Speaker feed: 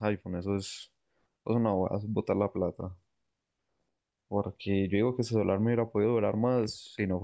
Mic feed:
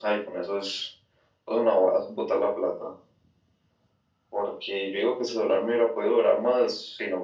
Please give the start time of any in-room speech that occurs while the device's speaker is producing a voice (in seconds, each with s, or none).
none